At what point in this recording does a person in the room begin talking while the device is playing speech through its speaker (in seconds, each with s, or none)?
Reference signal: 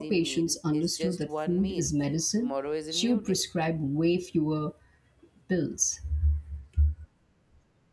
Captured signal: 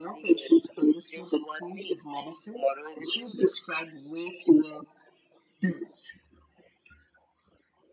none